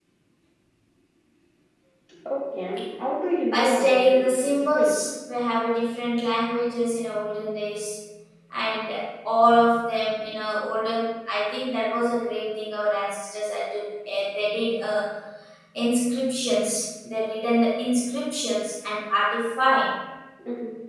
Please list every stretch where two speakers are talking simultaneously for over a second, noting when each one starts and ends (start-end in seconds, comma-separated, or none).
3.5-4.9